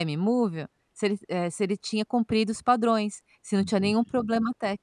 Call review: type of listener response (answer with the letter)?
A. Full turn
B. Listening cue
B